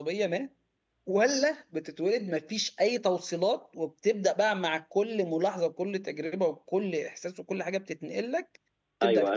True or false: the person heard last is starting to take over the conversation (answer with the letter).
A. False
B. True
B